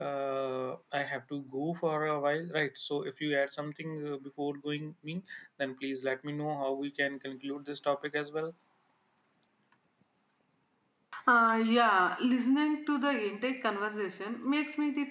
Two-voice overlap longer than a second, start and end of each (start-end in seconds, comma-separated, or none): none